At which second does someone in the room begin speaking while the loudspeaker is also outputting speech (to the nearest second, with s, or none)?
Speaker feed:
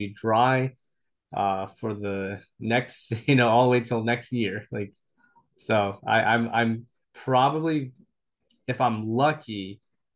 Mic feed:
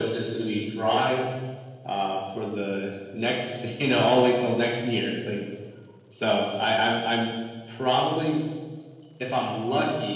none